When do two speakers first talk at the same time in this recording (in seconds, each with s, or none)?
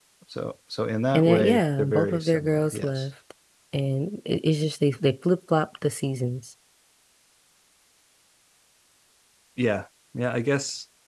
1.1 s